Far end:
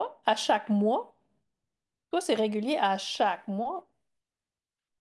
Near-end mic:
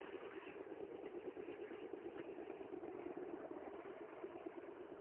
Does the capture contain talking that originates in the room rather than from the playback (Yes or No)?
No